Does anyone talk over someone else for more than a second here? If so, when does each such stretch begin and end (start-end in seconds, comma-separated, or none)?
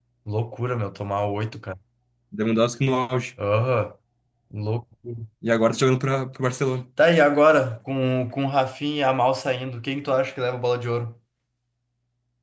none